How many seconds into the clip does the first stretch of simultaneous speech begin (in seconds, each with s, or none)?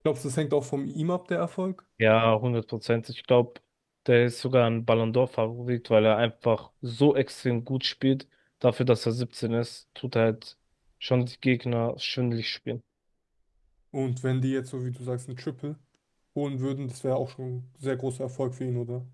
none